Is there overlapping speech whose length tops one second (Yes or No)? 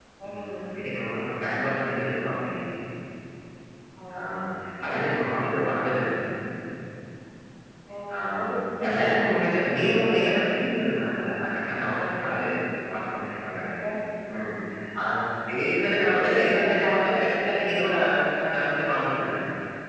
Yes